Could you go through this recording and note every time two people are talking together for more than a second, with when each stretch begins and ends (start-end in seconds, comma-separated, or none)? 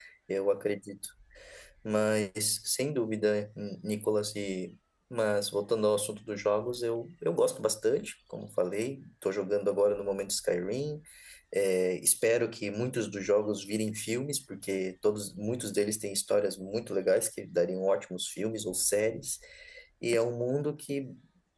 none